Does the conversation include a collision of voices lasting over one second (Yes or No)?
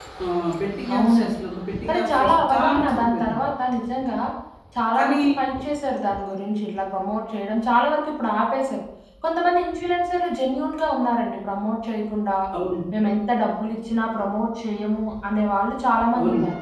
Yes